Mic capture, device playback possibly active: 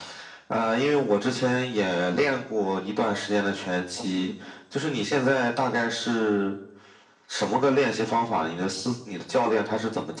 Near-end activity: none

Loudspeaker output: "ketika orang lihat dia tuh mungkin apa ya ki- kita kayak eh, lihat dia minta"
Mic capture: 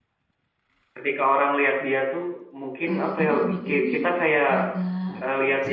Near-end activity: present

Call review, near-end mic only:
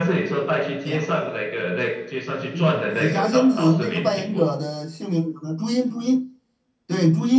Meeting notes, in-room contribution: present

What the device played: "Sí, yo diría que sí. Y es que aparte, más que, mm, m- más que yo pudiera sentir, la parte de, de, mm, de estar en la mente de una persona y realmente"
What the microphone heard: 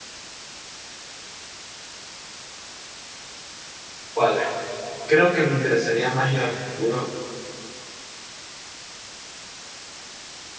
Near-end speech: present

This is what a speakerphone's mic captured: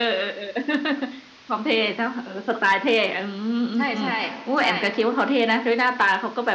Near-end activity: present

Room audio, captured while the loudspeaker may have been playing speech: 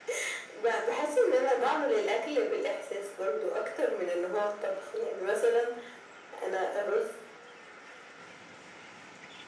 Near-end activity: none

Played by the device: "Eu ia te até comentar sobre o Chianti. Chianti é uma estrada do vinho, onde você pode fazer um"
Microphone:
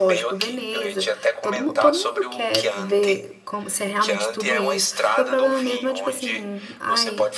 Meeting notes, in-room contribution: present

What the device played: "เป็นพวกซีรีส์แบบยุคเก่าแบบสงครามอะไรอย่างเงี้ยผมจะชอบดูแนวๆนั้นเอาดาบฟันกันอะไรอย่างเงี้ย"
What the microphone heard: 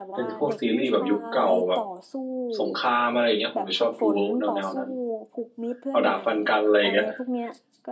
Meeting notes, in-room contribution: present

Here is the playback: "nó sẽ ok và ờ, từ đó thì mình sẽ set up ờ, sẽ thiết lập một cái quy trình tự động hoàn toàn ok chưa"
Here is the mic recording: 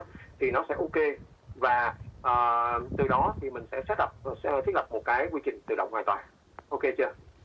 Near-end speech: none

